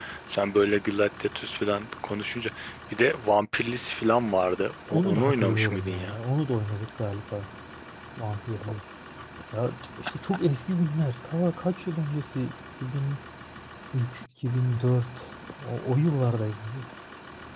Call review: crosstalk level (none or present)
present